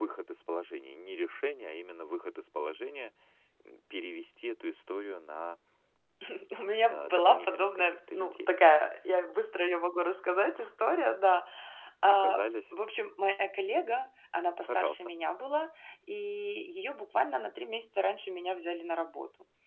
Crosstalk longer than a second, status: present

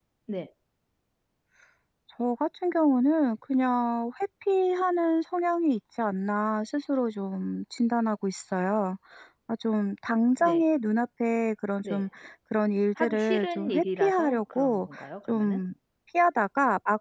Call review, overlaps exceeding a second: present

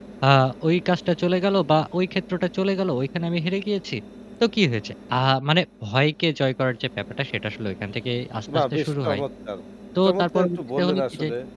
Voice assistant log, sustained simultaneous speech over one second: present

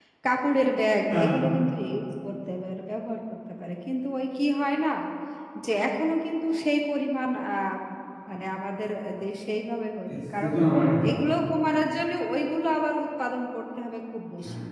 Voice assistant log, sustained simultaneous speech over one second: none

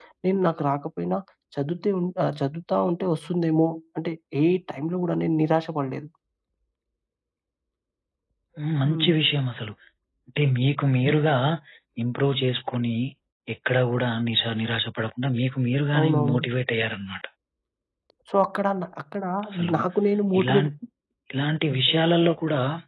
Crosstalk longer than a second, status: none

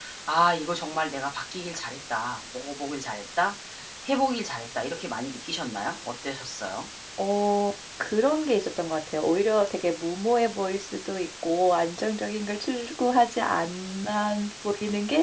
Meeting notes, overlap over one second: none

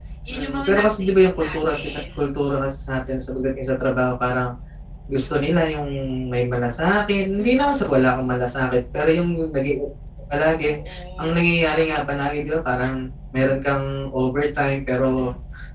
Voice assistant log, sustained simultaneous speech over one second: present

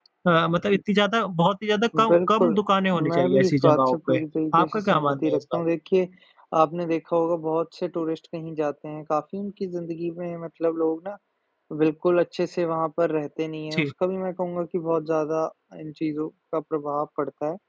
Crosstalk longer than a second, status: present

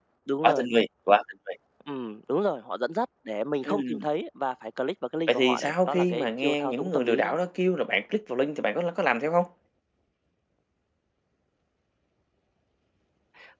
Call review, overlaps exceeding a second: present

